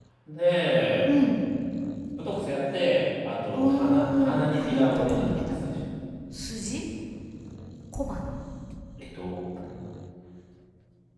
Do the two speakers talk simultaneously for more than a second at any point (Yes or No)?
Yes